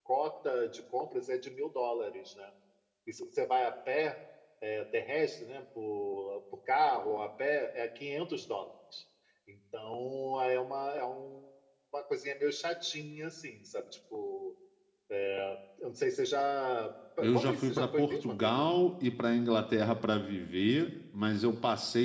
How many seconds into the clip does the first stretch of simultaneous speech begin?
17.2 s

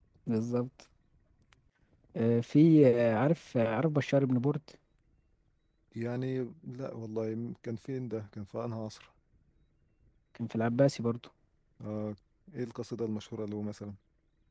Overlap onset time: none

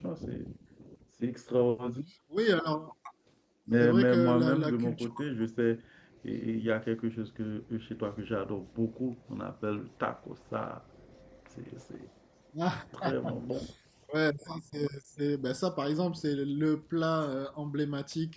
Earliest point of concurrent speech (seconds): 3.8 s

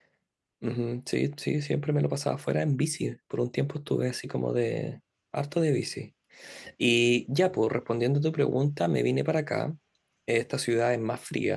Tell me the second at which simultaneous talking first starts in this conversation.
none

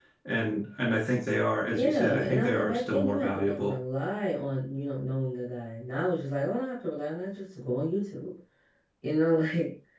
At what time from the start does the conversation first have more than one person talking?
1.7 s

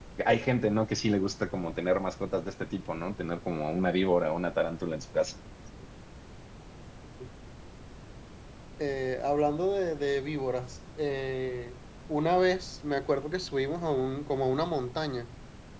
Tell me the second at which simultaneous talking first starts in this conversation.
none

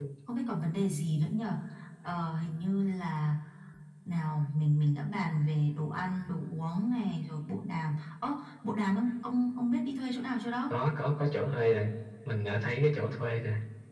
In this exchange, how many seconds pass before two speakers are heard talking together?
none

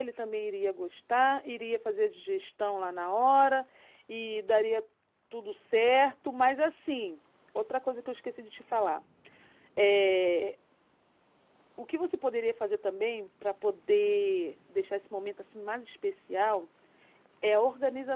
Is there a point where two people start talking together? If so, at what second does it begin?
none

